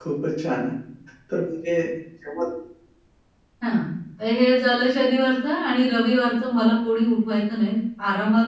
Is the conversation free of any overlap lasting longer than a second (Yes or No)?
Yes